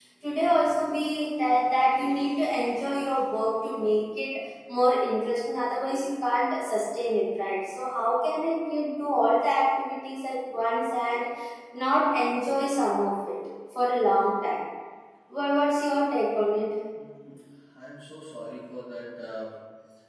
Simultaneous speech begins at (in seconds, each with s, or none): none